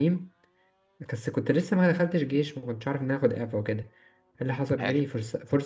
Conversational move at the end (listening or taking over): listening